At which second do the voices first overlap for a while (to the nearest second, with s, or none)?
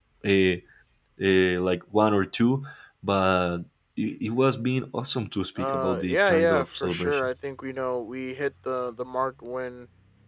6 s